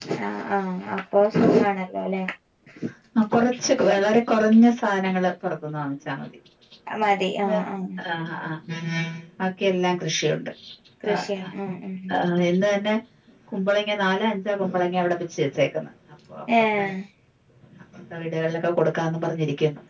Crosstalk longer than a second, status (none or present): none